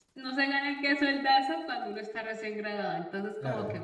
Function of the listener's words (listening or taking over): listening